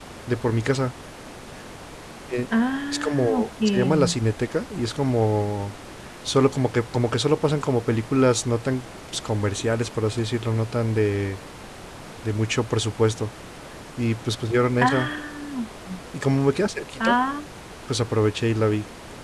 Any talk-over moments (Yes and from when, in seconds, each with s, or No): Yes, from 2.9 s